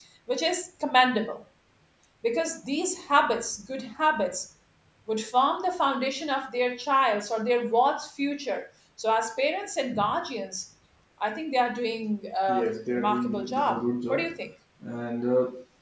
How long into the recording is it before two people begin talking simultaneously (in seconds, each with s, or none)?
12.5 s